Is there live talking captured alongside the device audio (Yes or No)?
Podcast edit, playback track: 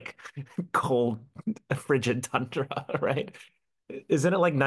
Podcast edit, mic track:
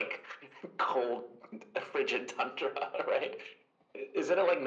No